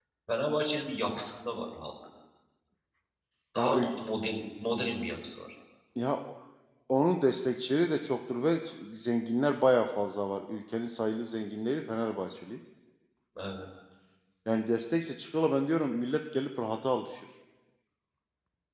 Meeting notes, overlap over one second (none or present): none